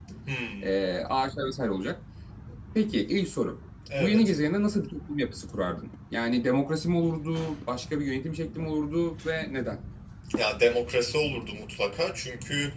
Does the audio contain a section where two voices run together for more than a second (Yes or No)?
No